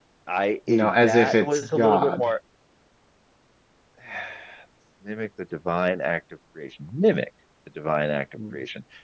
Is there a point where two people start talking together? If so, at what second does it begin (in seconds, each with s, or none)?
0.7 s